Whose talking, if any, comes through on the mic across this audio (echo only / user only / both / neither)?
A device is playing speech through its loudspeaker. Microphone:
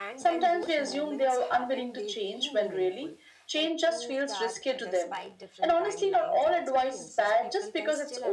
both